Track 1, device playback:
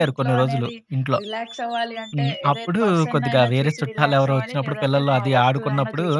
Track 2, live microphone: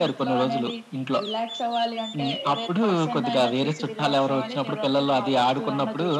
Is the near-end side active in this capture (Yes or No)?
No